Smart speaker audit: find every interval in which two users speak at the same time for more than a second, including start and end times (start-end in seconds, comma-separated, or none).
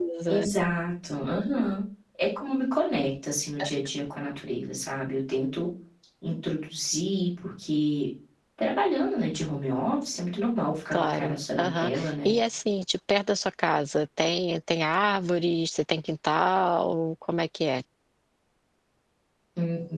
10.9-12.3